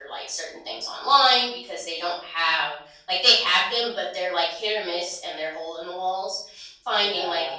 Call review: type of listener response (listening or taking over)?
listening